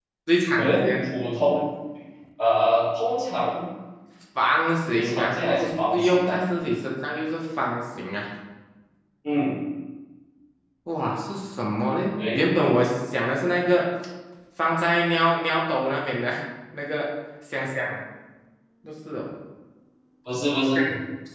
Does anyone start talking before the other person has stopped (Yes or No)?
Yes